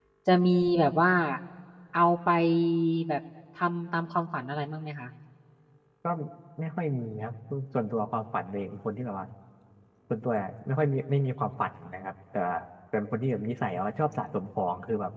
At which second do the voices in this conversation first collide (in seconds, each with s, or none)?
none